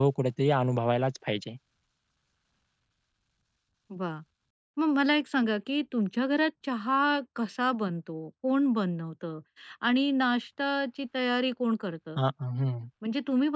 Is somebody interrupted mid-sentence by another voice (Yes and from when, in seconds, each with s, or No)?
No